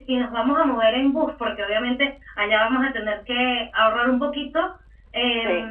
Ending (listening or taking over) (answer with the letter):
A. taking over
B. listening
B